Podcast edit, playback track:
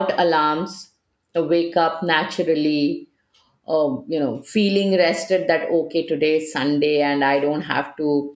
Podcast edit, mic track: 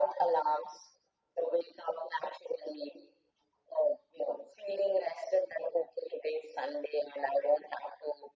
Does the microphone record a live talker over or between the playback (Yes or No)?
No